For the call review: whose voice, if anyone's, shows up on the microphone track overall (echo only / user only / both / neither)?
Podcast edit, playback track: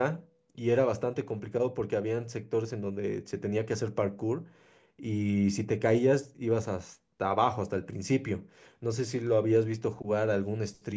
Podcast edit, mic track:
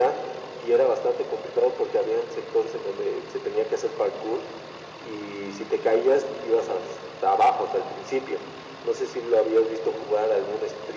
echo only